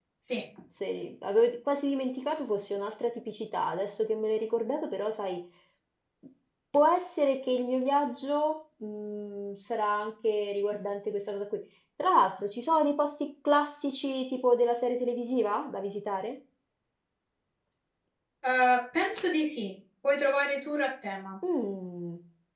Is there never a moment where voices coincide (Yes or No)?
Yes